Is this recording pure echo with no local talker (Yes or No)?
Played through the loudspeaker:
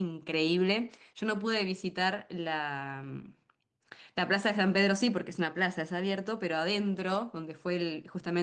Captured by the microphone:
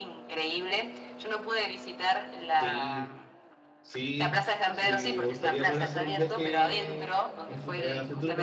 No